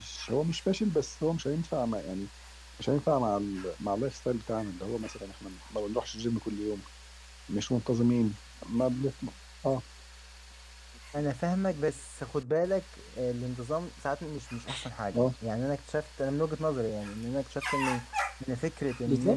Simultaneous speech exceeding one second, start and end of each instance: none

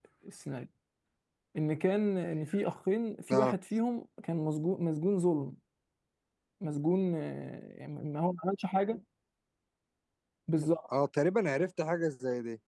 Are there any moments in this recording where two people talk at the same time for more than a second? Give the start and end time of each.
none

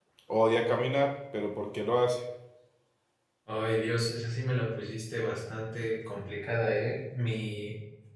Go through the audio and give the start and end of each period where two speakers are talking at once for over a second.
none

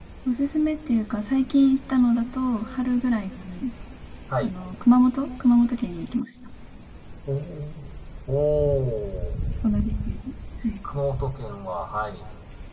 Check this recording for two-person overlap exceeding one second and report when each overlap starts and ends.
none

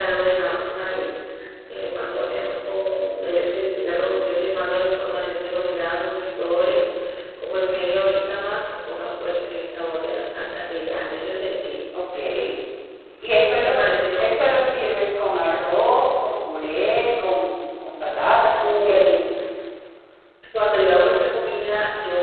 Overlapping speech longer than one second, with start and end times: none

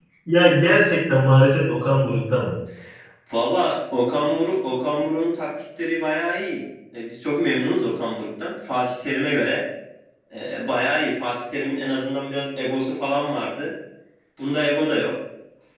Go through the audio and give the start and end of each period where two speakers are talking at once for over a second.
none

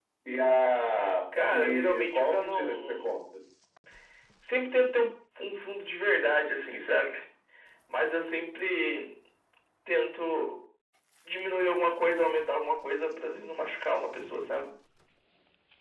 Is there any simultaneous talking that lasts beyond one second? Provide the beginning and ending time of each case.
1.5-3.1

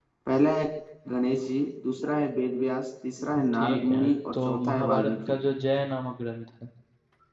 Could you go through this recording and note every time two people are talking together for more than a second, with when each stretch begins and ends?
3.5-5.4

